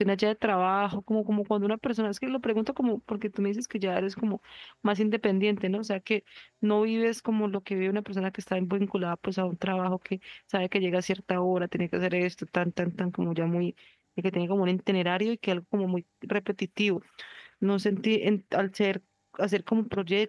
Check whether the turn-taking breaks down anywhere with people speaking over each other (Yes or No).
No